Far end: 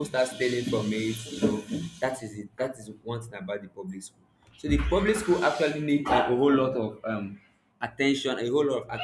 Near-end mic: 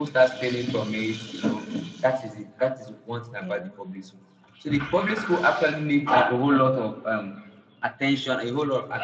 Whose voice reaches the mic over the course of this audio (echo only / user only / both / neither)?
both